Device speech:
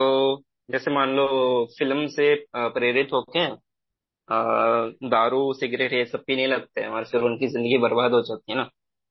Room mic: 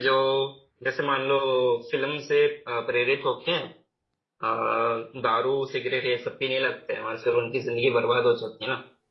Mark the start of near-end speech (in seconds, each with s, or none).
none